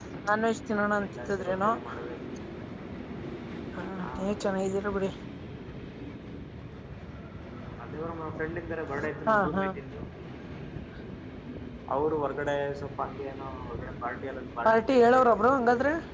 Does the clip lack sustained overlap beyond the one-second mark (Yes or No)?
No